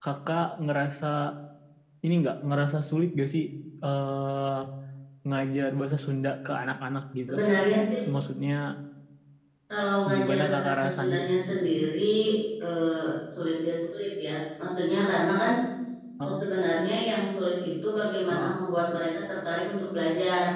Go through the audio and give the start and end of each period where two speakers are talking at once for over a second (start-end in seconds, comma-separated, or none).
10.1-11.5